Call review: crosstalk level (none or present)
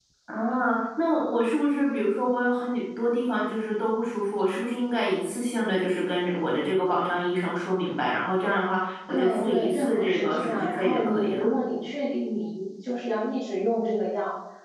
present